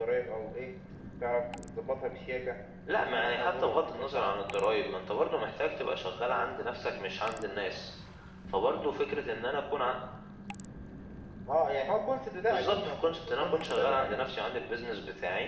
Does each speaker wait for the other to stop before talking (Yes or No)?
No